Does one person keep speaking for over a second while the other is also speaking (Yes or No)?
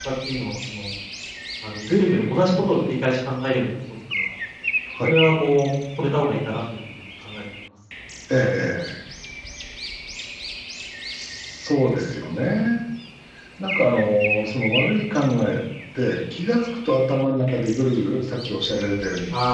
No